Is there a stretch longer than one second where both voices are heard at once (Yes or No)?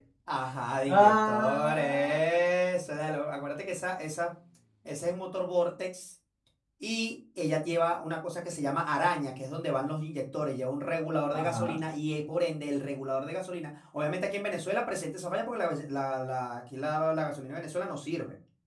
Yes